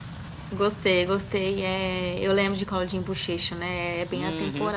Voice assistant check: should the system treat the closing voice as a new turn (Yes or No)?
Yes